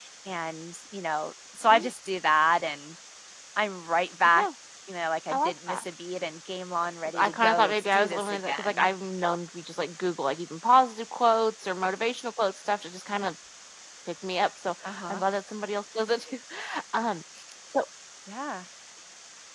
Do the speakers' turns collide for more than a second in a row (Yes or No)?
Yes